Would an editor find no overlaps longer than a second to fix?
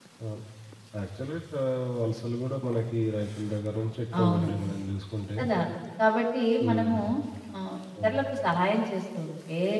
Yes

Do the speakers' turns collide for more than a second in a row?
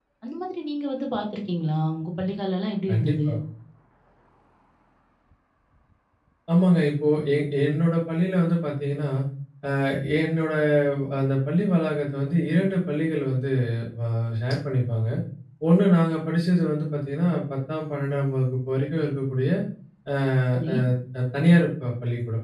No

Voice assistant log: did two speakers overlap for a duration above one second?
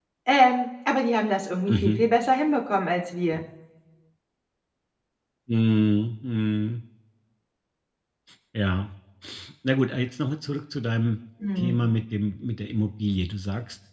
No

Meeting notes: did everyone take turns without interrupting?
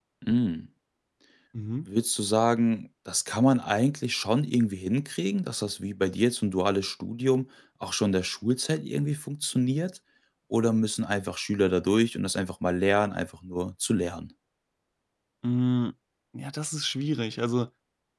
Yes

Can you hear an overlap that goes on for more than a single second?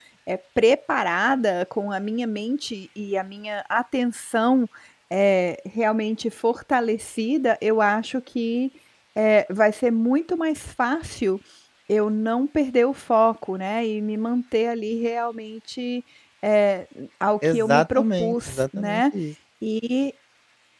Yes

